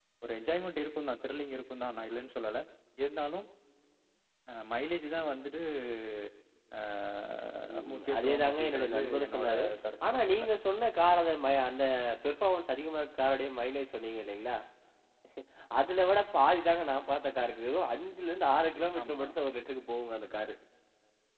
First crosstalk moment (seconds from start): 7.9 s

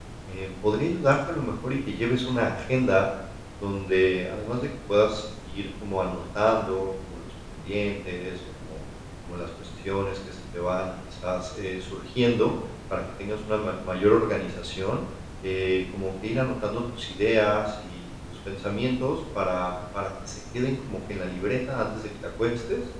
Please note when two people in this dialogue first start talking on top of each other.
none

